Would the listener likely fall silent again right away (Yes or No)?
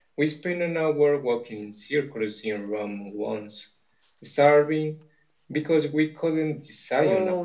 No